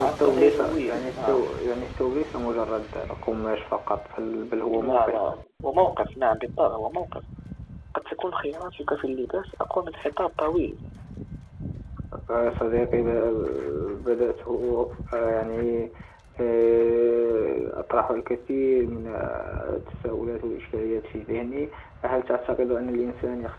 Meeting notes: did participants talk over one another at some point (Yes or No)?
Yes